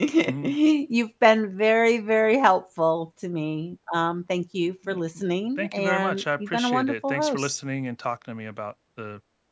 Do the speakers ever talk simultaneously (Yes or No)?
Yes